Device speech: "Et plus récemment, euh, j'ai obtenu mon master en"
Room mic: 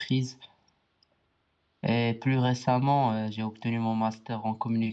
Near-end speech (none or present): none